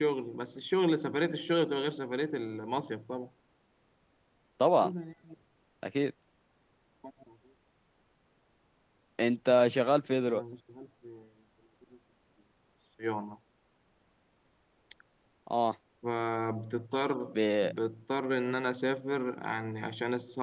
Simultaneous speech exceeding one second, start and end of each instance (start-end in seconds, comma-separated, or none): none